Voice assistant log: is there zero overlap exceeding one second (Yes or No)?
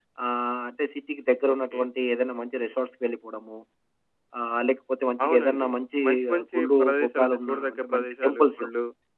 No